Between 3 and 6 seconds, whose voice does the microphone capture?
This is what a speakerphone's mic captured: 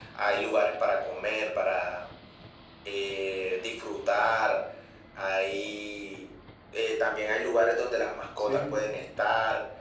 echo only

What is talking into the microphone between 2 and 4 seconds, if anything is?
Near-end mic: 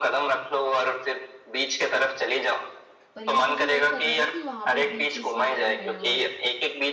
both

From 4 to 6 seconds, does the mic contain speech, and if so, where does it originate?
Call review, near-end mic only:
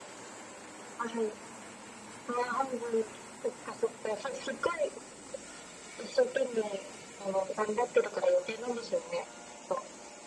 echo only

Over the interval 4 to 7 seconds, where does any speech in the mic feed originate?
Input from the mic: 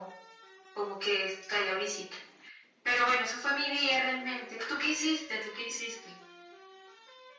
echo only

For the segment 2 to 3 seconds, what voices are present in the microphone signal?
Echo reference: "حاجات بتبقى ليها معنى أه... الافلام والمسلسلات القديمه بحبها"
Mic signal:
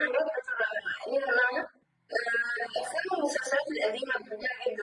echo only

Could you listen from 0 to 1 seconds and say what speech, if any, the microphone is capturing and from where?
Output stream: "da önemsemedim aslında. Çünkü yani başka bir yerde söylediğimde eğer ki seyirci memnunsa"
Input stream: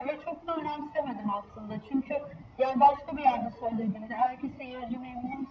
echo only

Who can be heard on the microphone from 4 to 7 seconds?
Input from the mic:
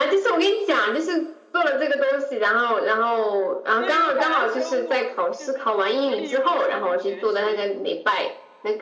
both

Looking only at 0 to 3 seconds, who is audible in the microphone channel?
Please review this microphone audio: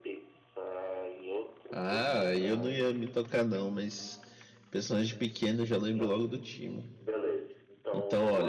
both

